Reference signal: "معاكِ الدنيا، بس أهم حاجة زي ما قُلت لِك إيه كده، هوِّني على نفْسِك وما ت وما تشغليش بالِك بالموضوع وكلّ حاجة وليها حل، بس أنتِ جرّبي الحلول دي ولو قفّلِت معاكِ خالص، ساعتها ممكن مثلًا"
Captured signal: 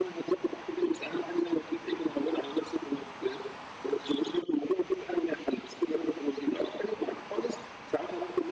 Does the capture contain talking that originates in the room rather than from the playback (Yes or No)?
No